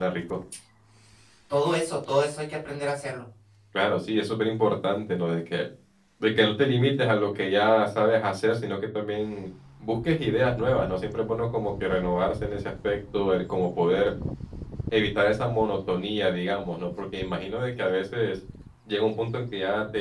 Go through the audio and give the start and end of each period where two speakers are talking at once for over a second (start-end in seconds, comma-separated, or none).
none